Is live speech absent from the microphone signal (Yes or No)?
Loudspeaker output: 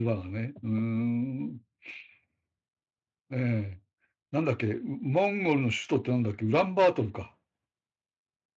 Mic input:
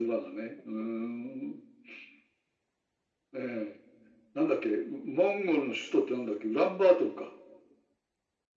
Yes